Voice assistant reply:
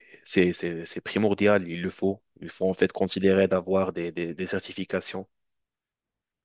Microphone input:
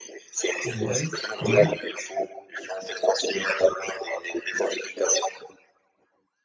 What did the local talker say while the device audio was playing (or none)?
Ouais, ouais,